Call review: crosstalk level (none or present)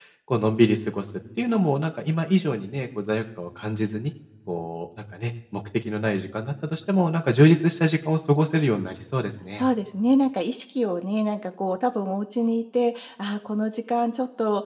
none